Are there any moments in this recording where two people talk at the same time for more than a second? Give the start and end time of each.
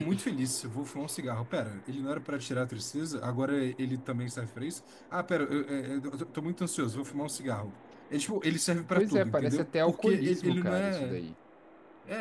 8.9-11.2

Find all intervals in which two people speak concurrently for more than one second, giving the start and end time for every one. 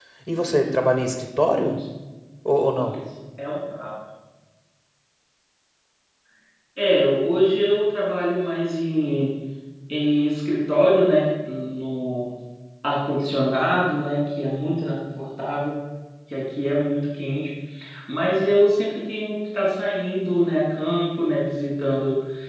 none

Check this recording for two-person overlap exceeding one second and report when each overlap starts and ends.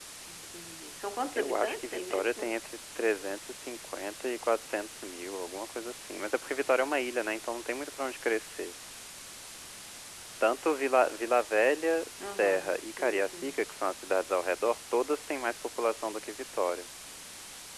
1.3-2.6, 12.4-13.6

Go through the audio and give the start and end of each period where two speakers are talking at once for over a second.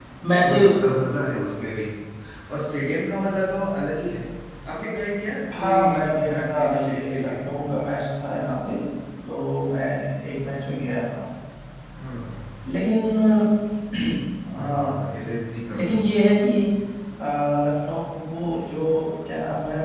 5.6-7.5

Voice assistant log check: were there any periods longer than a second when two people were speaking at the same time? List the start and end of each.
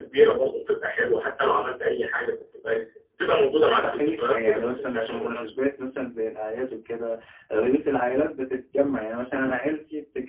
3.8-5.3

